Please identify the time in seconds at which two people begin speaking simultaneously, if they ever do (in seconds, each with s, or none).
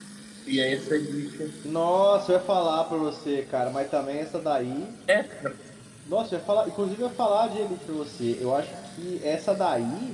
none